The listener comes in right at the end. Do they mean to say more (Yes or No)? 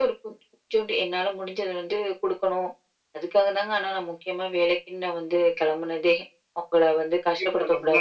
Yes